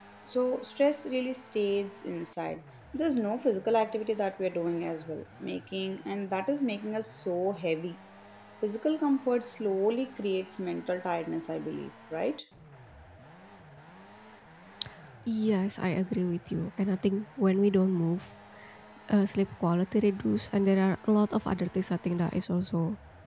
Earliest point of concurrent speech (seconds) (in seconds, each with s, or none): none